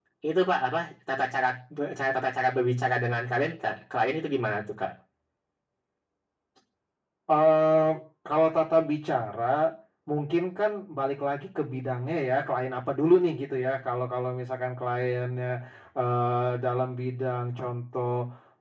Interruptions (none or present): none